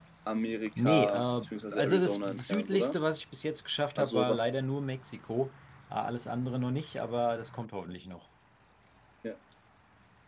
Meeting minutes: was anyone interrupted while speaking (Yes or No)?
Yes